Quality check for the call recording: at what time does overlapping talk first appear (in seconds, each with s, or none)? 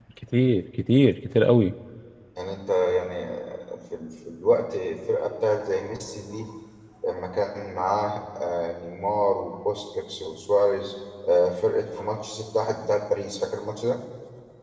none